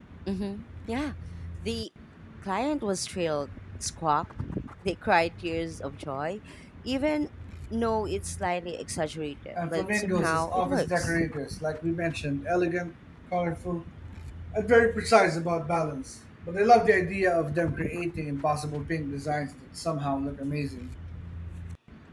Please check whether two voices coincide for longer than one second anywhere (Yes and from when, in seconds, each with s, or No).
Yes, from 9.6 s